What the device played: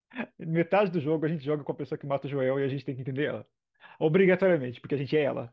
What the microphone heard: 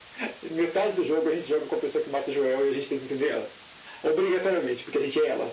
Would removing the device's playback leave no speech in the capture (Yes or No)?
Yes